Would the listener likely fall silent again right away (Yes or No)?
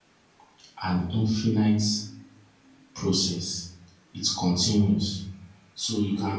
Yes